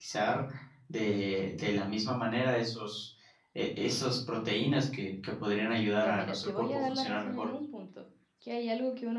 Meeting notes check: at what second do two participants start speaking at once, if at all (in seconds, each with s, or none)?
6.0 s